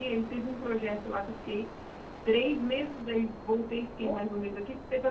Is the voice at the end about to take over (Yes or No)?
No